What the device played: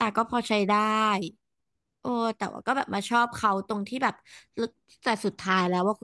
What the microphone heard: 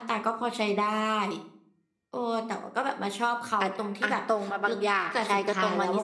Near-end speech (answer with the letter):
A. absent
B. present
B